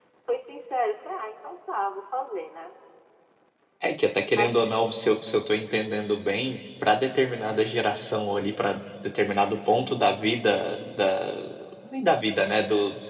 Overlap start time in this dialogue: none

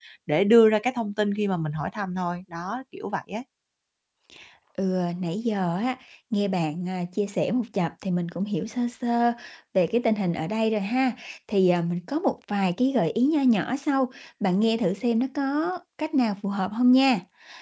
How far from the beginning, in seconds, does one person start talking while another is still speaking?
none

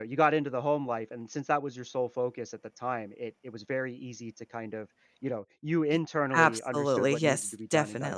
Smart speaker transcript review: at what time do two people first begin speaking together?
6.3 s

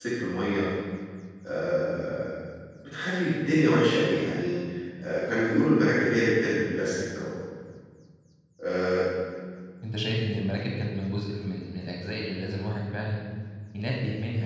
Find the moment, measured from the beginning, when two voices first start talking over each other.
none

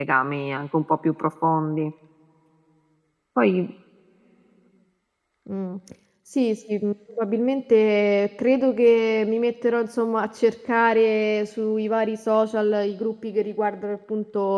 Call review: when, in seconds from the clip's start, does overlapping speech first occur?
none

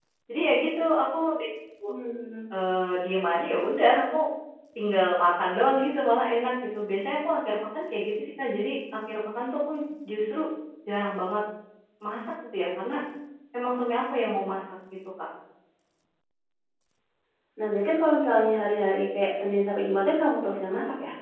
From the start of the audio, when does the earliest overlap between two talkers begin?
none

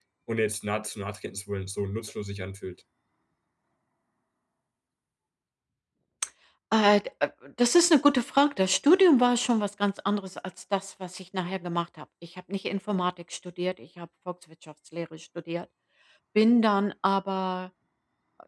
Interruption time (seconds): none

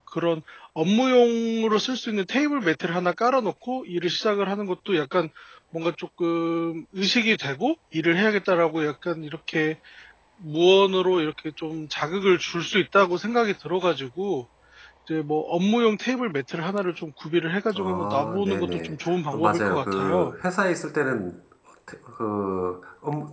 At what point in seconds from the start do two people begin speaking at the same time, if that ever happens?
17.7 s

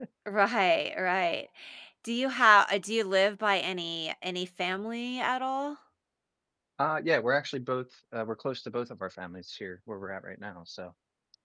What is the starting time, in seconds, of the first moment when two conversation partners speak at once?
none

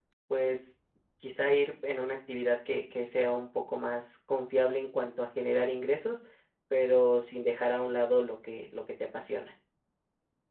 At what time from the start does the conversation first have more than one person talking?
none

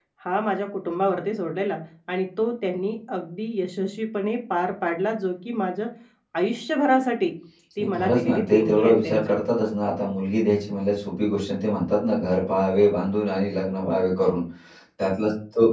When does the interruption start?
7.8 s

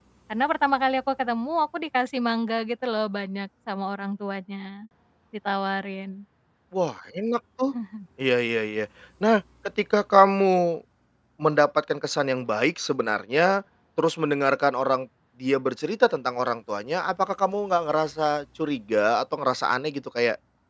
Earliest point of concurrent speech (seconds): none

